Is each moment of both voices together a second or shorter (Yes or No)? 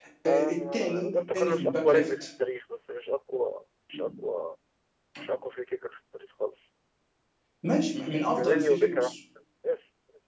No